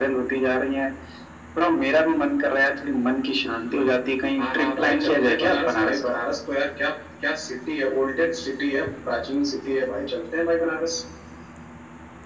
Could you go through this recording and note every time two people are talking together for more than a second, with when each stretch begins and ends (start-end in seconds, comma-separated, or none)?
4.4-6.0